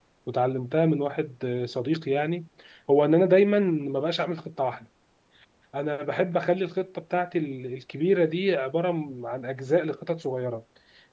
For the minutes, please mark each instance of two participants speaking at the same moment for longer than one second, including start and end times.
none

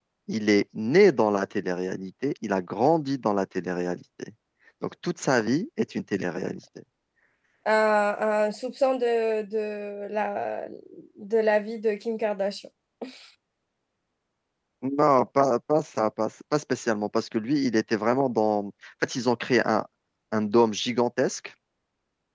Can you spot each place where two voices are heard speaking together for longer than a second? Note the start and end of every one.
none

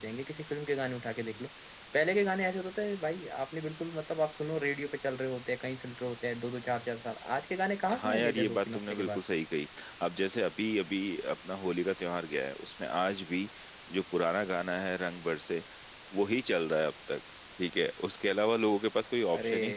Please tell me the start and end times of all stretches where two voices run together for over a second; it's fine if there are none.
7.9-9.2

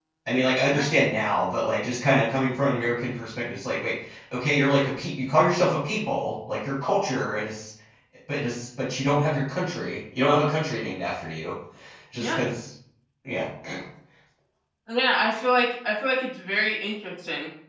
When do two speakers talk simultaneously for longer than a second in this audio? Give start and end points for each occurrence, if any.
none

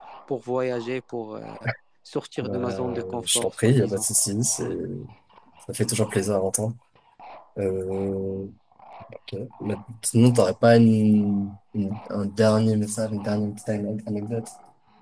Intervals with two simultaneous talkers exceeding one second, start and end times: 2.4-4.0

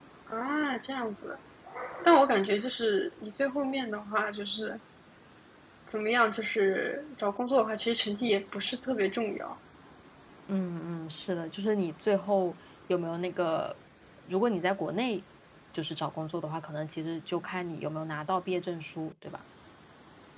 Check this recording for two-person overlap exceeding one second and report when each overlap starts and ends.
none

